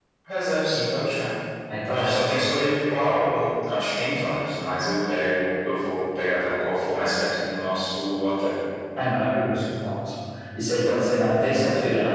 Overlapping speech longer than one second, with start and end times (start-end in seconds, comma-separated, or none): none